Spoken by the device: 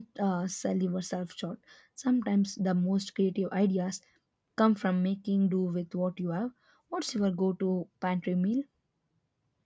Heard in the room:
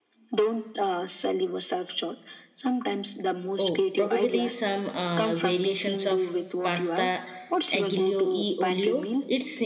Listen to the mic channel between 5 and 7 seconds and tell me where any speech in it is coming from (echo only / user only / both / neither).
both